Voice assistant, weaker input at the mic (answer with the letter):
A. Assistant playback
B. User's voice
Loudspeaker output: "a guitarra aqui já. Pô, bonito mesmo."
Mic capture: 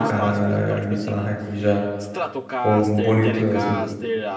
B